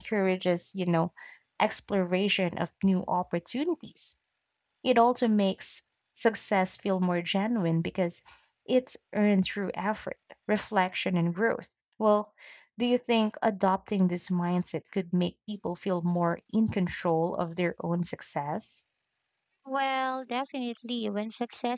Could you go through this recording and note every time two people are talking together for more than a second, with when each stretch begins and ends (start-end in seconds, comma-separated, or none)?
none